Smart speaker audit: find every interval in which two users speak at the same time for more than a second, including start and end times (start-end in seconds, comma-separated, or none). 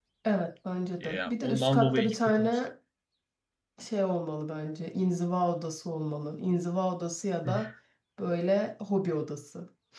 1.0-2.6